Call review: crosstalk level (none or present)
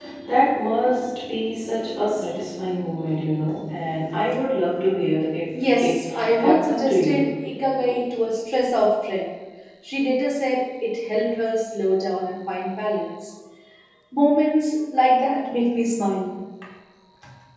present